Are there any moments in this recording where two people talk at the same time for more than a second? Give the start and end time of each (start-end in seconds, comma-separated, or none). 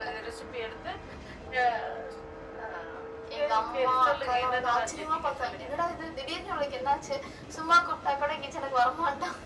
3.4-5.7